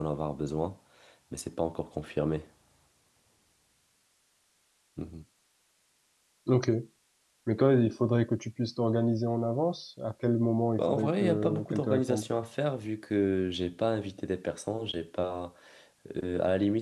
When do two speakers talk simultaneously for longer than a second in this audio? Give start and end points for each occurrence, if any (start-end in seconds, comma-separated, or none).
10.8-12.3